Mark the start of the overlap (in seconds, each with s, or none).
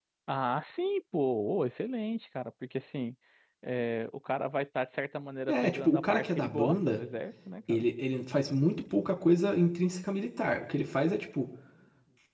5.5 s